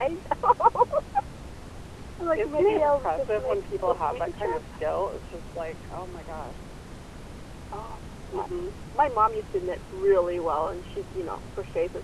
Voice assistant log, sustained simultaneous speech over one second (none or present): present